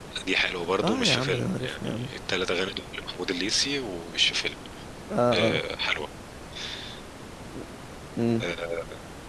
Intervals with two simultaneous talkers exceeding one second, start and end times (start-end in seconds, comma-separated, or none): 0.8-2.1